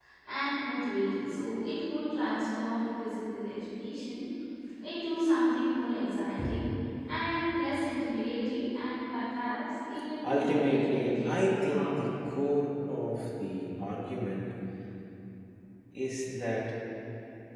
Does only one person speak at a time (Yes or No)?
No